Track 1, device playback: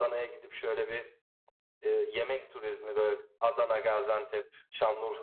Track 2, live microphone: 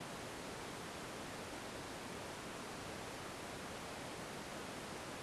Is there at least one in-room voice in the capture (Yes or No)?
No